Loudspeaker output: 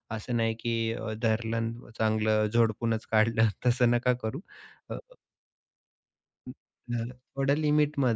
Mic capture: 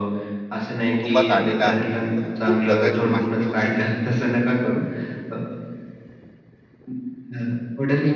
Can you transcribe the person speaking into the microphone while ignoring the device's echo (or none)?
कुटुंबात आलेला आहे, तर खूप जगाची माहिती वगैरे,